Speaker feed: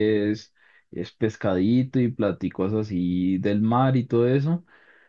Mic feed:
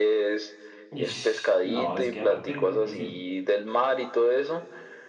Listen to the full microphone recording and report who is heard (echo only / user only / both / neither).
both